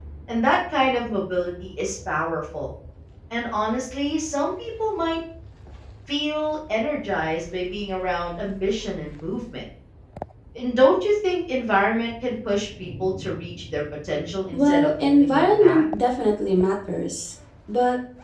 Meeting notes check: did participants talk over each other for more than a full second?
Yes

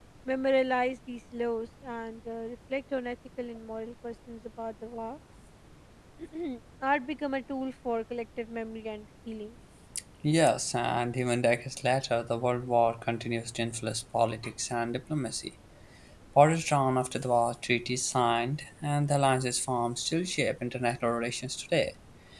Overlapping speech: No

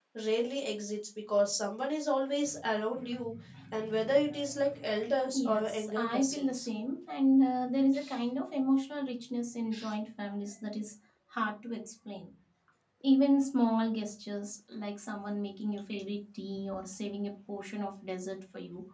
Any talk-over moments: Yes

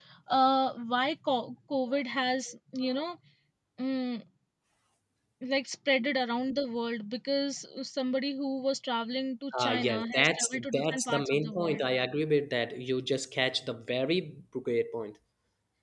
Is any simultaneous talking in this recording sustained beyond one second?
Yes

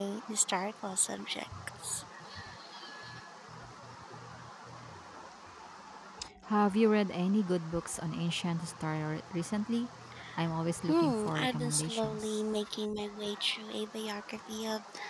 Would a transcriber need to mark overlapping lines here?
Yes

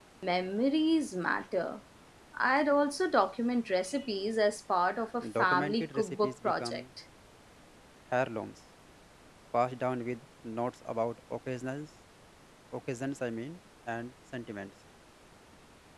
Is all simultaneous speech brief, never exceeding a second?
No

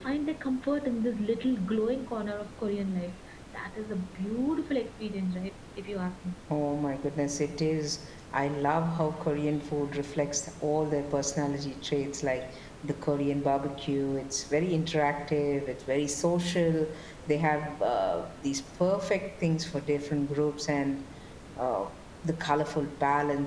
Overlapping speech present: No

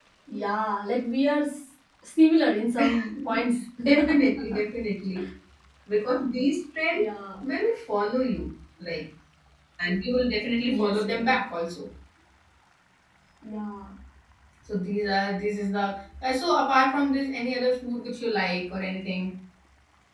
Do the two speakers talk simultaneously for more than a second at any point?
No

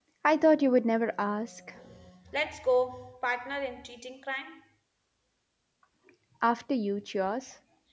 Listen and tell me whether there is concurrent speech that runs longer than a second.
No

